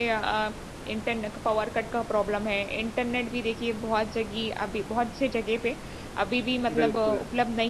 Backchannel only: Yes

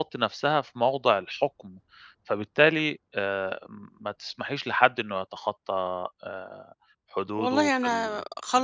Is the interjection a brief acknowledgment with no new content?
No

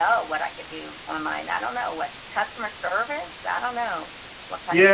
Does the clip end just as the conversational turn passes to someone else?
Yes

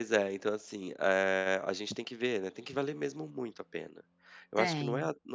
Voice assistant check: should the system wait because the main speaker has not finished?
Yes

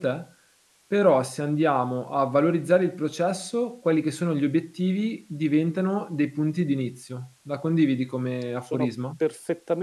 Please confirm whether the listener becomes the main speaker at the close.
Yes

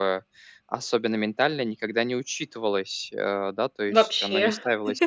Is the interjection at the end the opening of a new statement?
No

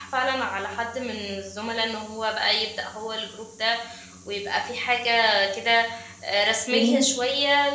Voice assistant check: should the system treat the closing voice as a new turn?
No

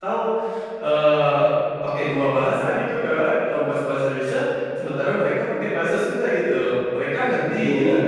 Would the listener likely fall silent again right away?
No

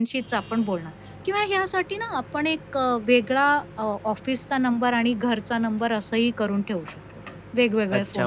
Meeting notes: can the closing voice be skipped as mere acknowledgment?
No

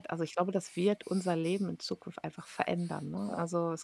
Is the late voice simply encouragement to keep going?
Yes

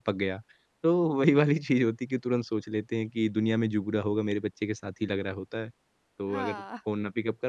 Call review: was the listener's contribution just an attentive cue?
Yes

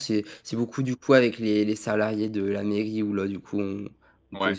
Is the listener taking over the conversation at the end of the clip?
No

